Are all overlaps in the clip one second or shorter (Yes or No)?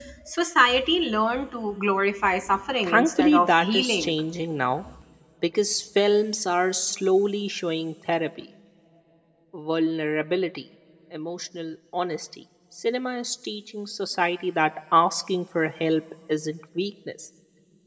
No